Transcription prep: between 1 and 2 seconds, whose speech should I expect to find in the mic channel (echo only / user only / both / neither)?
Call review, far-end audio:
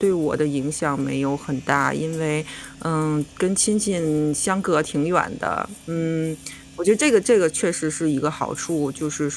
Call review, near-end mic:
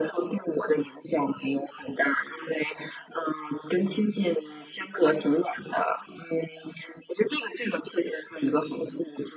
echo only